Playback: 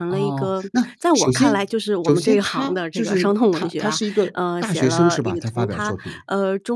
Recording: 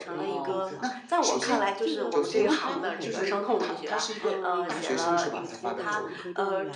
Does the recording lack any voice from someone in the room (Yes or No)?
No